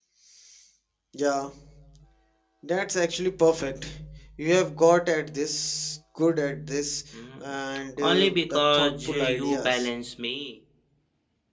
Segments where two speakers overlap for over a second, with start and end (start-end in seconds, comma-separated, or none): 8.0-9.8